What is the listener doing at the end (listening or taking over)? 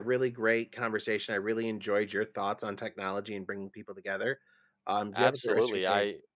taking over